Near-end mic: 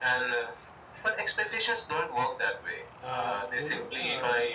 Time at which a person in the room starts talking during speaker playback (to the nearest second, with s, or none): 3 s